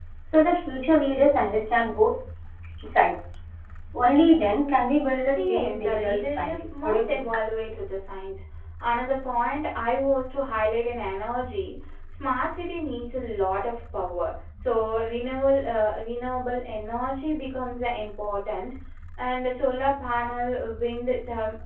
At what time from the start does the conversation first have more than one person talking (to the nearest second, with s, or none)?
5 s